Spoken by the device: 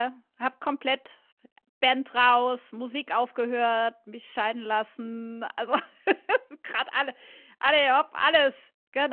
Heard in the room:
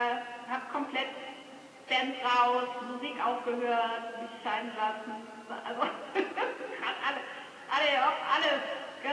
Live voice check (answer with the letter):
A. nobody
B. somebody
A